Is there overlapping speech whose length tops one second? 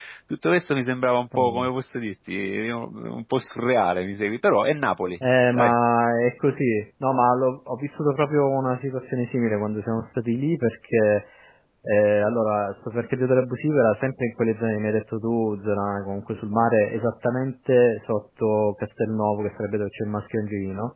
No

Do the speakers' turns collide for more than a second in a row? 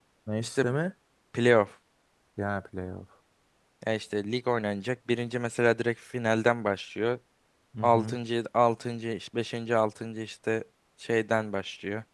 No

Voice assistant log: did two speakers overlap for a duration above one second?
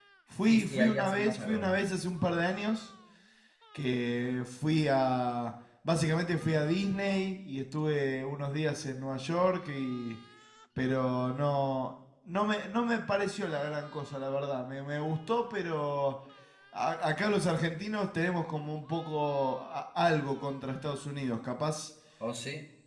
Yes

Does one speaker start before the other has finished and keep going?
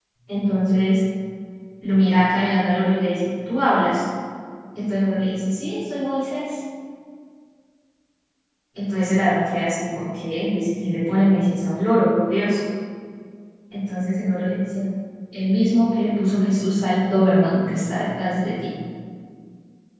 No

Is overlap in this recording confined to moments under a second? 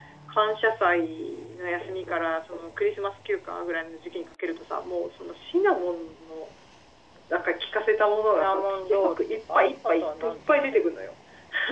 No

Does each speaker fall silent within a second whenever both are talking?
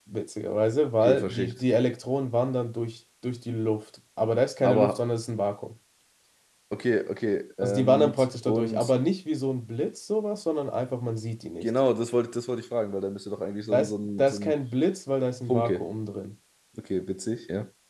No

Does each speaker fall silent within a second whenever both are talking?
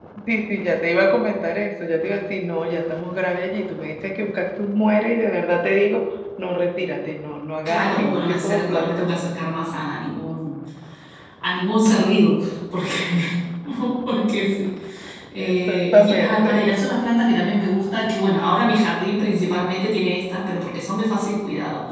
No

